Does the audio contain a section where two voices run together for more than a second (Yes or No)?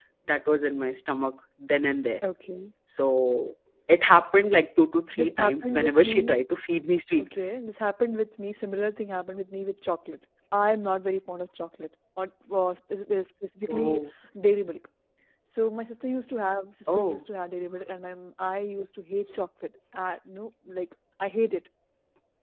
Yes